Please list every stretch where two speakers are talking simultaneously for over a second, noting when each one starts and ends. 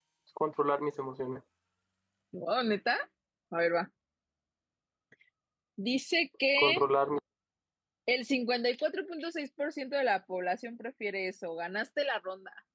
none

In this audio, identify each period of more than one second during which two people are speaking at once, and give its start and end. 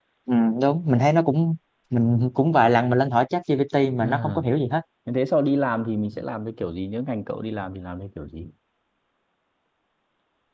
none

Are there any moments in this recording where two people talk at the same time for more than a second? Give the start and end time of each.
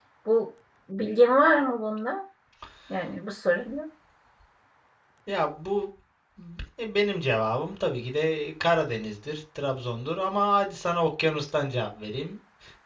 none

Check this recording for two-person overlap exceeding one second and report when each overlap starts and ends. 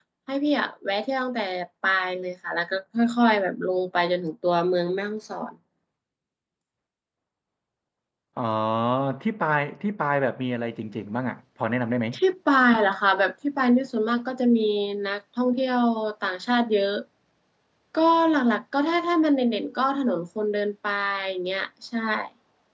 none

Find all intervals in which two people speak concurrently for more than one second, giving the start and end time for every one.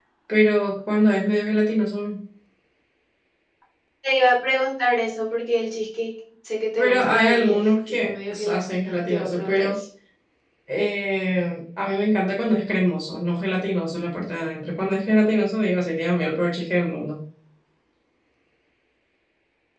6.8-9.8

